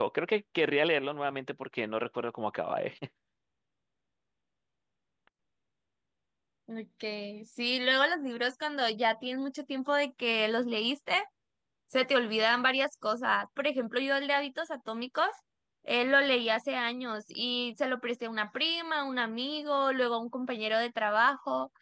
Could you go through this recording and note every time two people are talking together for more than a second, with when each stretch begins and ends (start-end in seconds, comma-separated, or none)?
none